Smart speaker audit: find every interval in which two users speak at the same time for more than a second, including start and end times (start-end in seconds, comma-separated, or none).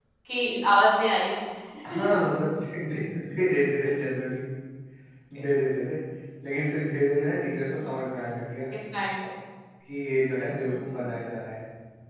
none